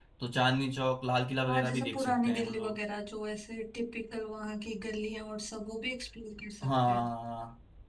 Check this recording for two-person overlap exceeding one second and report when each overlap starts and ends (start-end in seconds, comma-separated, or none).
1.5-2.7